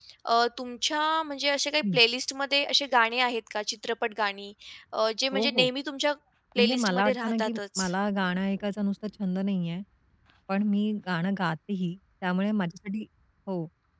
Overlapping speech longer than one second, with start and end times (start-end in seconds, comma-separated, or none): 6.6-7.8